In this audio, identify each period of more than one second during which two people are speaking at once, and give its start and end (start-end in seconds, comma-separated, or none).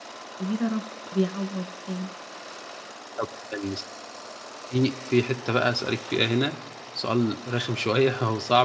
none